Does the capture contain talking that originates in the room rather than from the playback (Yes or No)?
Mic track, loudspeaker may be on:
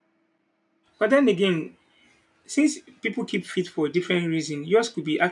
Yes